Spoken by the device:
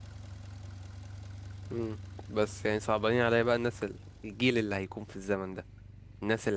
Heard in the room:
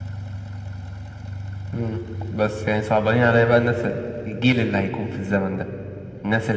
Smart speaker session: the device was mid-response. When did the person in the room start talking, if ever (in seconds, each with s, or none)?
none